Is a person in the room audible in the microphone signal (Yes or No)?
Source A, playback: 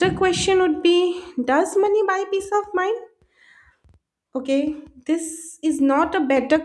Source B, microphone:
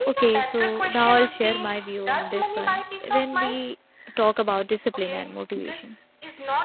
Yes